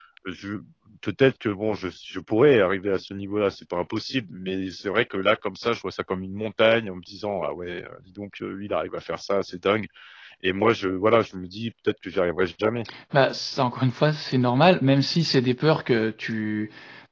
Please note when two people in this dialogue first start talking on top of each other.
none

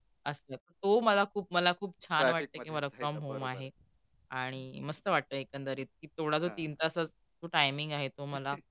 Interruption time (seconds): 2.2 s

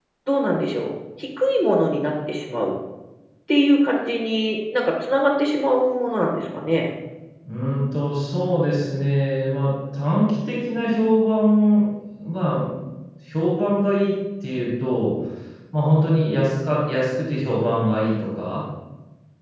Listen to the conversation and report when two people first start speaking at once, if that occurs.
none

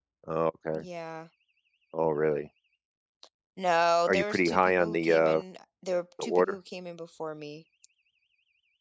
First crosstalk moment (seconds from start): 4.1 s

